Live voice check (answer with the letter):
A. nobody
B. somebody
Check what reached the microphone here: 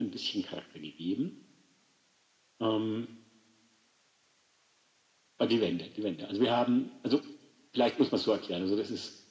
A